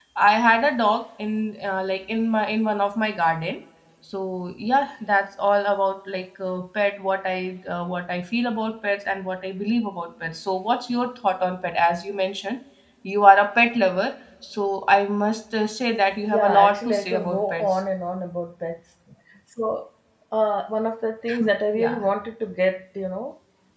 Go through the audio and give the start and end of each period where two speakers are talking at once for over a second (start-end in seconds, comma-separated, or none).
16.2-17.8